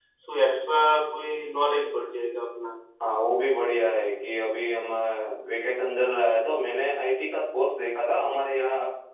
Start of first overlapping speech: none

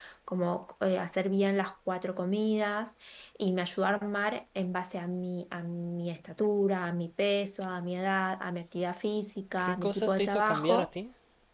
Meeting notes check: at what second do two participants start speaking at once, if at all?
9.5 s

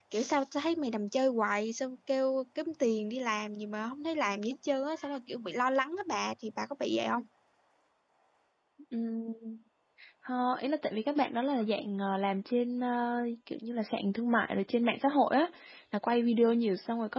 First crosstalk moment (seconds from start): none

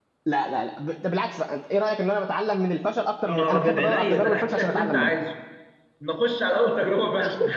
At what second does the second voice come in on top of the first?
3.3 s

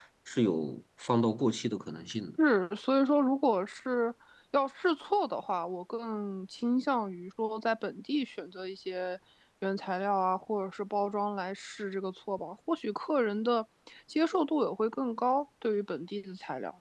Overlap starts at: none

